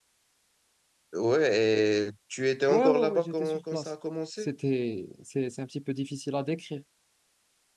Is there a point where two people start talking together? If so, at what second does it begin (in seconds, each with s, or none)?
2.7 s